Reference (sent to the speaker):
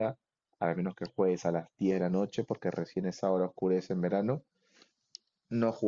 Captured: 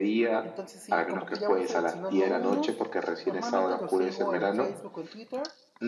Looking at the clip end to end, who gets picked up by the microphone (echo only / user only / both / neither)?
both